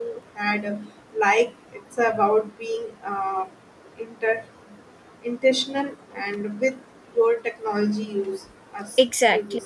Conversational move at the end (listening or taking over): taking over